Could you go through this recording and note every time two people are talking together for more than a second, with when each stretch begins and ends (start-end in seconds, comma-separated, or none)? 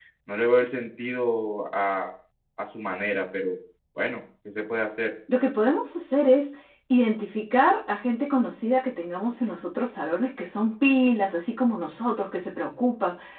none